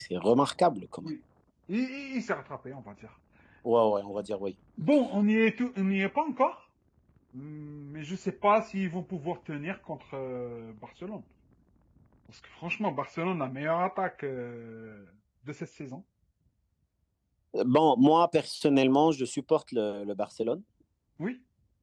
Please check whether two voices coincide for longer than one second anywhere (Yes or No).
No